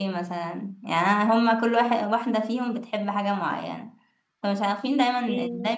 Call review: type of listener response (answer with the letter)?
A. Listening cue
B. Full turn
A